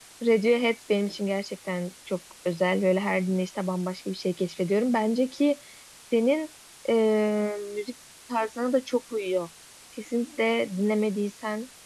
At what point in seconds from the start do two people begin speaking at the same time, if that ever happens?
none

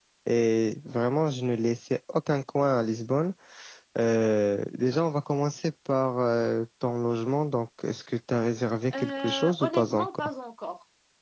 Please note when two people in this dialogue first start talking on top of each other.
8.9 s

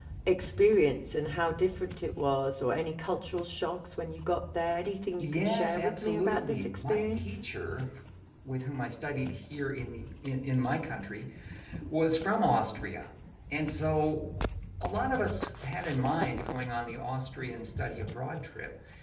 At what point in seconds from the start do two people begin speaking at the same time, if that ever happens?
5.2 s

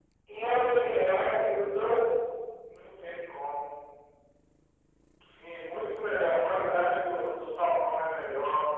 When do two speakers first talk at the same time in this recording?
none

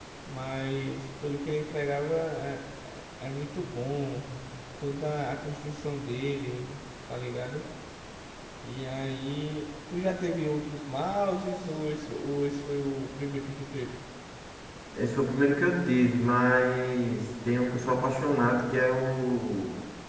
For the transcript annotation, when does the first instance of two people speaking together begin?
none

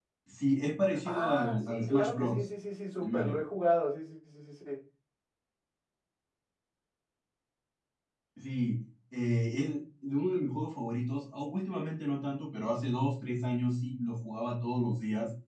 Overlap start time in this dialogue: 1.1 s

